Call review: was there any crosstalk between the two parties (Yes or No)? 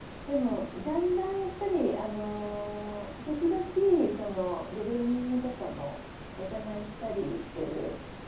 No